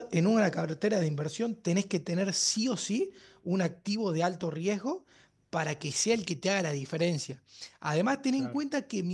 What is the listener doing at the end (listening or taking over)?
listening